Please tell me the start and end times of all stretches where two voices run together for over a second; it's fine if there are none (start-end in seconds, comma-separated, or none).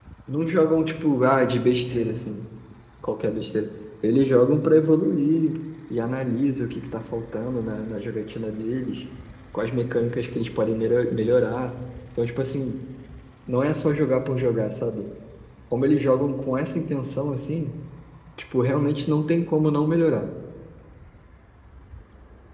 none